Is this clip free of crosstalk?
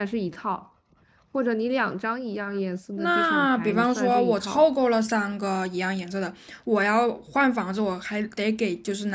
No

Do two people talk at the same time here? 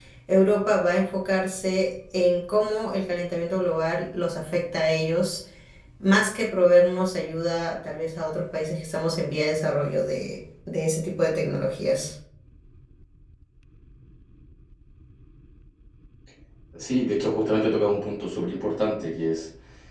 No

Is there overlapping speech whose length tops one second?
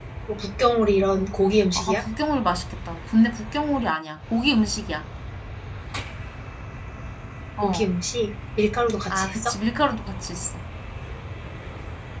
No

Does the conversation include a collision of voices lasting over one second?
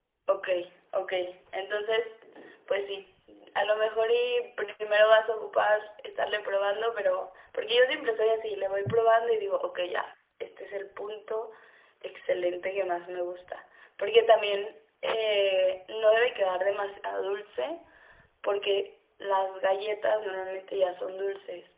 No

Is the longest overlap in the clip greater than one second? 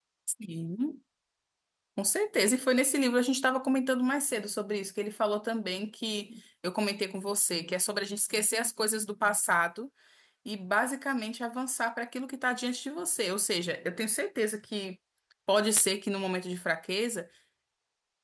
No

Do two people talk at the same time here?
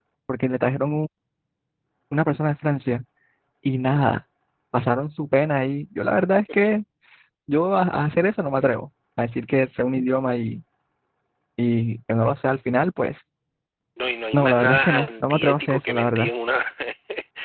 Yes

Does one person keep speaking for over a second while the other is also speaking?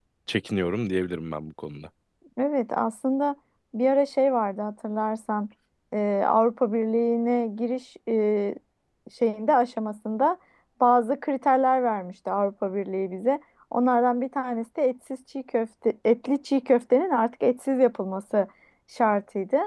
No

